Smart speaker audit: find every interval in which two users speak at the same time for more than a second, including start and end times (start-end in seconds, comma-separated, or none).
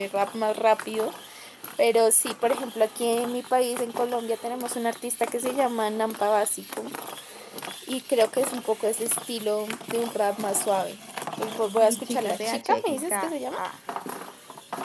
11.8-13.6